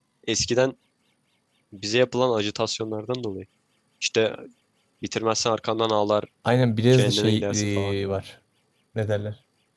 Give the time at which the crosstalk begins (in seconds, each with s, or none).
6.9 s